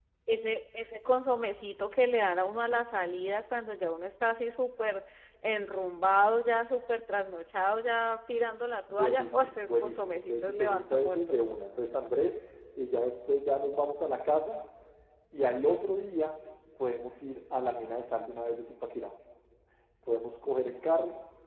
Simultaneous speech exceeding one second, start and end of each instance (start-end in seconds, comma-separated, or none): 8.9-11.4